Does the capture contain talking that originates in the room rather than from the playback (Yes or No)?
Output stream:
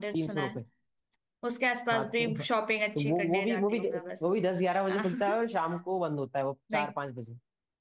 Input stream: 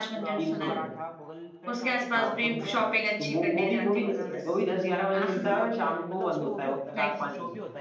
Yes